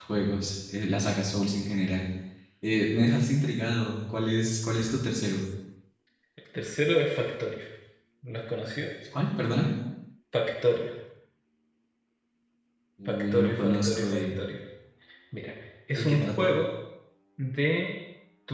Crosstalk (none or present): present